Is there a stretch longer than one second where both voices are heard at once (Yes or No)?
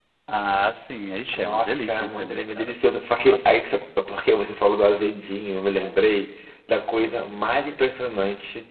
Yes